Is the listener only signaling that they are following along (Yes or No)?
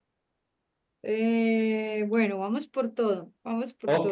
No